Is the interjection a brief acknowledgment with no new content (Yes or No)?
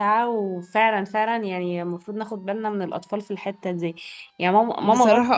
Yes